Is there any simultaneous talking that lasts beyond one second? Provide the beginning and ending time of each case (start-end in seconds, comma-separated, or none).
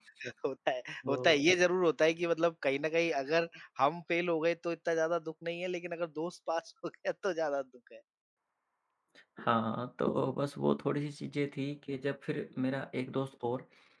none